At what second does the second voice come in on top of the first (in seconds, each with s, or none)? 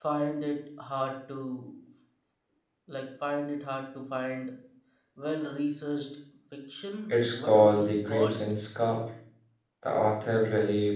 7.1 s